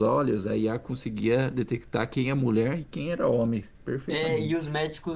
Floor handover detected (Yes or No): Yes